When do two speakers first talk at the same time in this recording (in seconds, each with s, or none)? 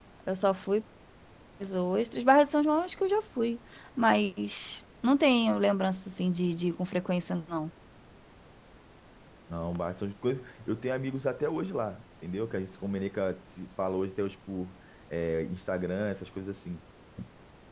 none